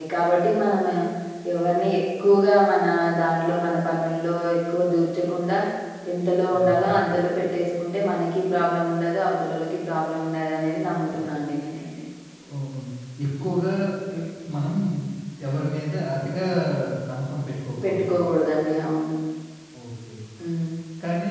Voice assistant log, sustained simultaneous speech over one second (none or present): none